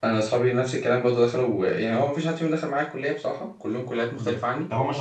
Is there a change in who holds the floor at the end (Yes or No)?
Yes